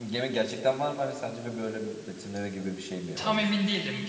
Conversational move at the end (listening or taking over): taking over